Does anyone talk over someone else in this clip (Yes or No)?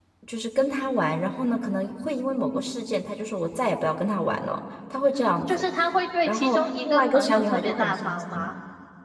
Yes